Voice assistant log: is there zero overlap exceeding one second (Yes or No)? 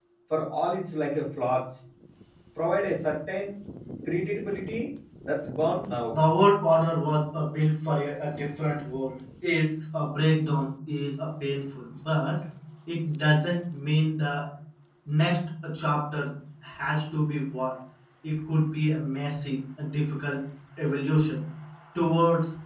Yes